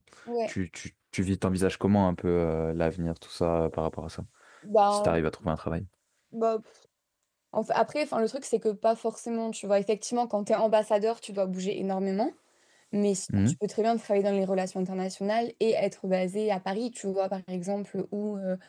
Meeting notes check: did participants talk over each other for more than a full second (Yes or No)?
No